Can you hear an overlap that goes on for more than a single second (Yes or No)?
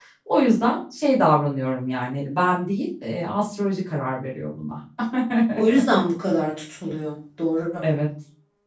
No